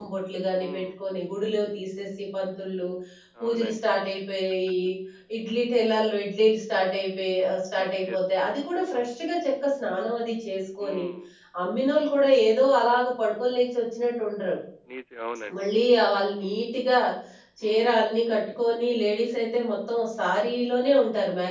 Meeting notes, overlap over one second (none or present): none